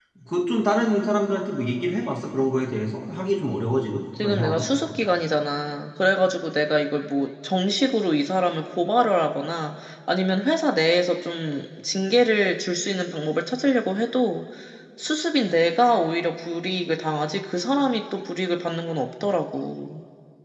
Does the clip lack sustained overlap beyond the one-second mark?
Yes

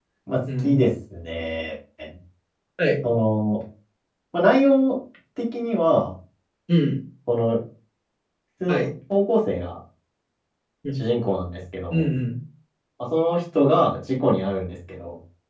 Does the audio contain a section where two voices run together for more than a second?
No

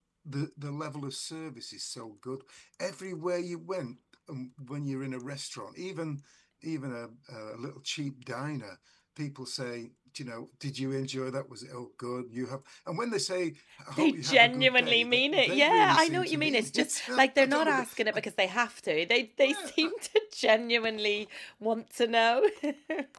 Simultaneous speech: Yes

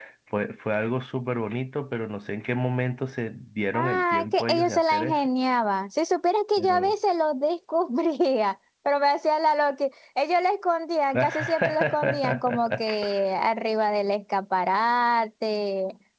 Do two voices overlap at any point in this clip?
Yes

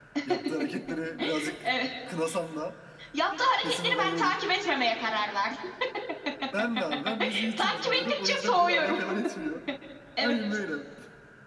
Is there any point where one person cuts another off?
Yes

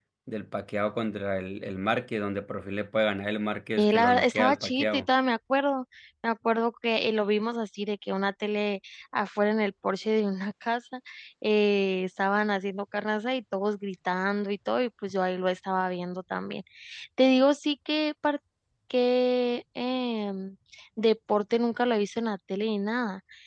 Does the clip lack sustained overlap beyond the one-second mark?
No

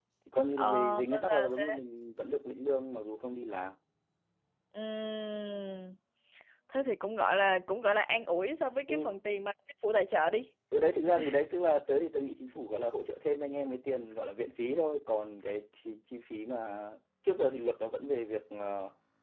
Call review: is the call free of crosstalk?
No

